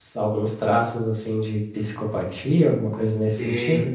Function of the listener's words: taking over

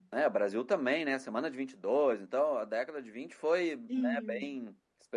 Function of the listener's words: listening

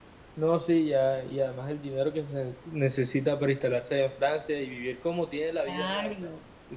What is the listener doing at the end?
taking over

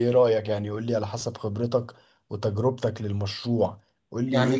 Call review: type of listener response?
listening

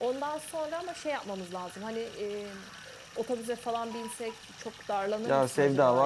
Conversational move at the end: taking over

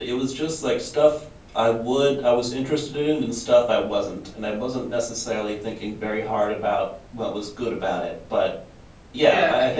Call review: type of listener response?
taking over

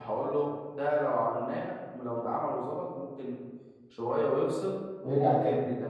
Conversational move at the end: listening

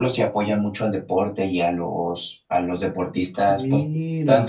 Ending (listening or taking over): listening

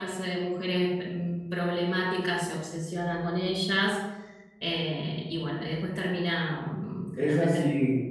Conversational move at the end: taking over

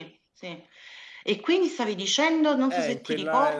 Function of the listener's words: taking over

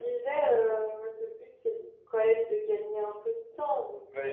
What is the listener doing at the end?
taking over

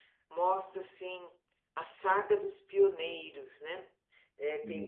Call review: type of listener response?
listening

